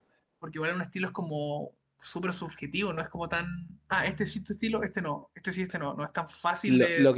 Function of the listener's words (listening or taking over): taking over